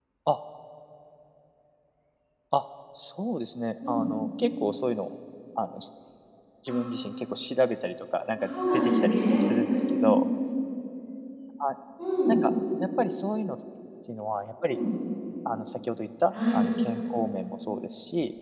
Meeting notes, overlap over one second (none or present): present